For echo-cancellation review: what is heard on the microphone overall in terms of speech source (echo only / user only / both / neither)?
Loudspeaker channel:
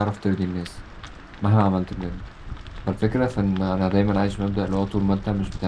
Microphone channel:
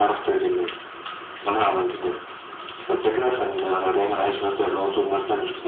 echo only